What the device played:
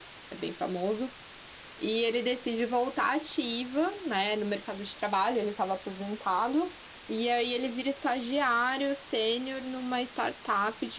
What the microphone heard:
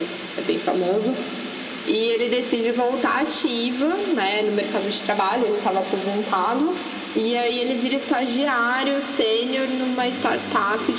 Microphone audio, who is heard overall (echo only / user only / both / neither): both